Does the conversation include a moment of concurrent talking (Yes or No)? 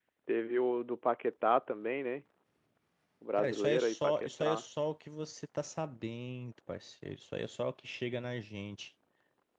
Yes